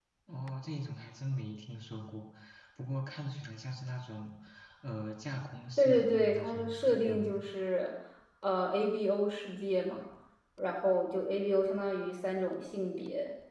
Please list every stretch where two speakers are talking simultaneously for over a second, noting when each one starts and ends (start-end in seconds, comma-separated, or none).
5.8-7.5